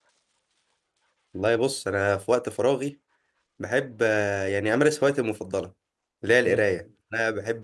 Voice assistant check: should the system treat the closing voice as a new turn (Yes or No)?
No